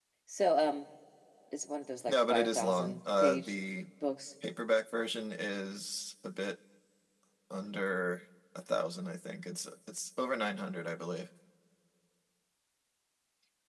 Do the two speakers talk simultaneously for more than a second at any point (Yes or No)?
Yes